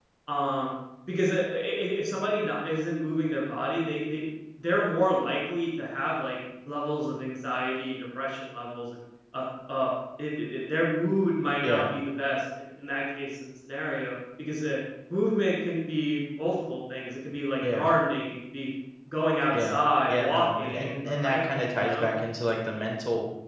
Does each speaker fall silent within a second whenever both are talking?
No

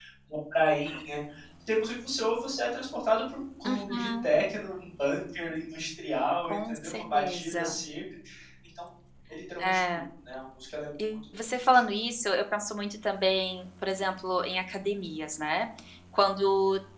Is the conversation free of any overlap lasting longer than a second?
No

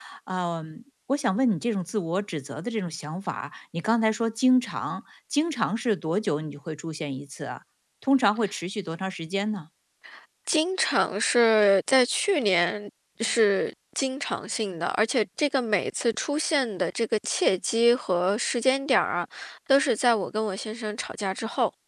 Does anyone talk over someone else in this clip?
No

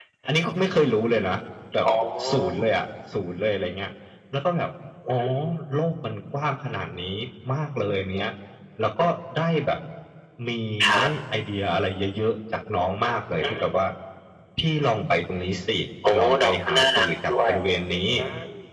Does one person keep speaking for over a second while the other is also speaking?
Yes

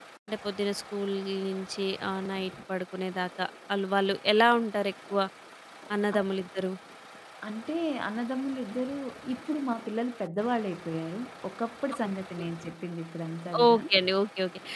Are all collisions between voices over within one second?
Yes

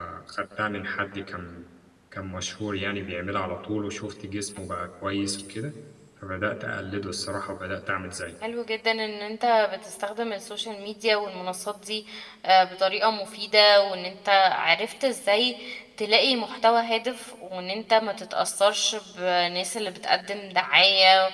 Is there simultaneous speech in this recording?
No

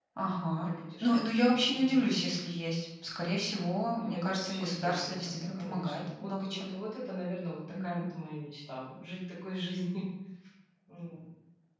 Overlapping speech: Yes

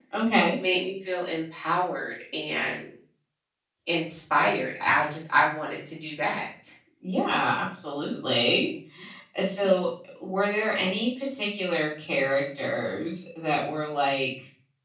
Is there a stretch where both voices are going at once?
No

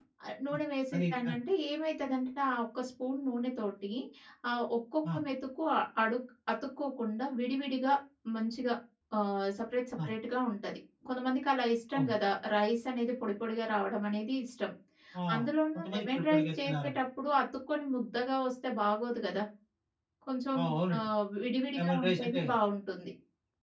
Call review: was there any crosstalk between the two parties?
Yes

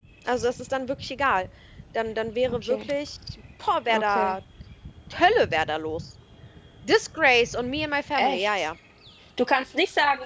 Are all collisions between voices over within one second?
Yes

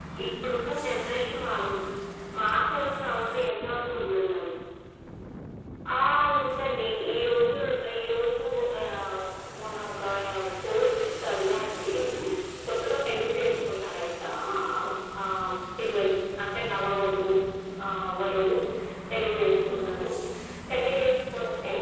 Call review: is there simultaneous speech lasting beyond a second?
No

